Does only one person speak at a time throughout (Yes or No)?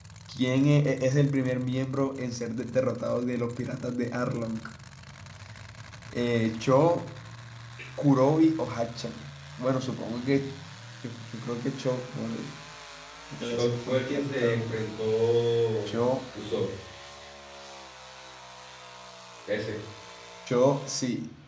No